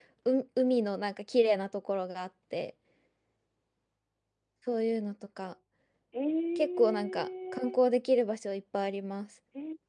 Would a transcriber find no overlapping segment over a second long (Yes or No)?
No